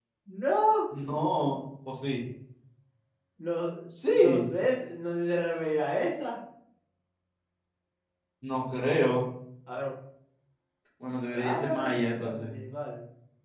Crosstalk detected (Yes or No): Yes